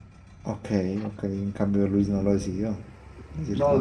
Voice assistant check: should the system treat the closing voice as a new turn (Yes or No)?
Yes